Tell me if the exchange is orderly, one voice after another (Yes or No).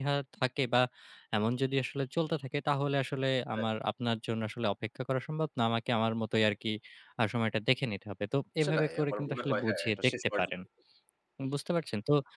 No